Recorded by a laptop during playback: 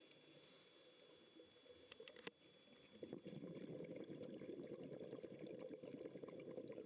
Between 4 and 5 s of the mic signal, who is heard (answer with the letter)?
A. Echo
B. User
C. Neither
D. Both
C